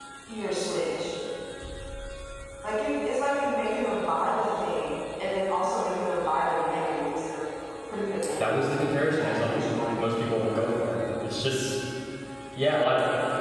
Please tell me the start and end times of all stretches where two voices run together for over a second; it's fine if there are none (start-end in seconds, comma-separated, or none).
8.4-10.5